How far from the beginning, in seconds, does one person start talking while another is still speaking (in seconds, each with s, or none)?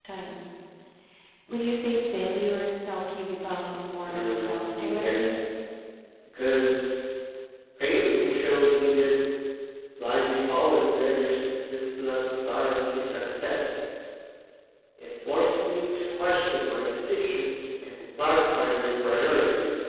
4.1 s